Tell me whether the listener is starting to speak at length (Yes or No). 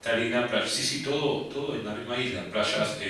No